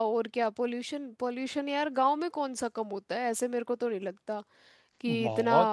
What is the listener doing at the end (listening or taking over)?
taking over